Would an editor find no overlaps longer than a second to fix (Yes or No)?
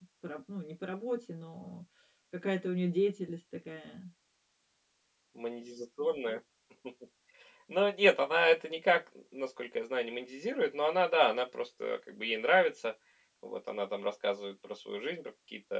Yes